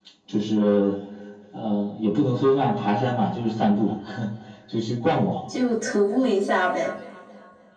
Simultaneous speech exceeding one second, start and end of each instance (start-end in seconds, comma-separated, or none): none